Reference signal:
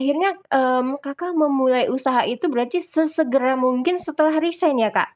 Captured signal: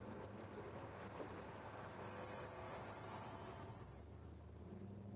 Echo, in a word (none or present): none